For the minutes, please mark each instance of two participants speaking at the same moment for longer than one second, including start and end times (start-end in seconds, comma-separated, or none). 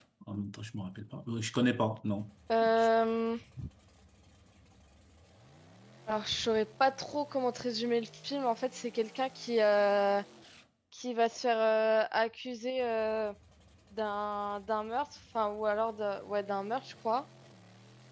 none